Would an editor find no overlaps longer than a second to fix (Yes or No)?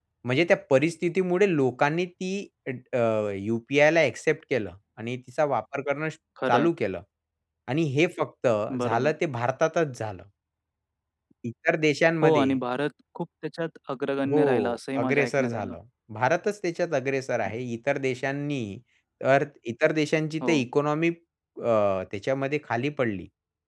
No